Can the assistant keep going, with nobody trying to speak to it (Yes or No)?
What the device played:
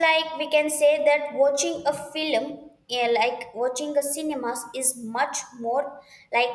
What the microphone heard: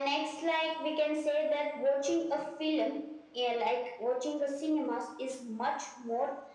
Yes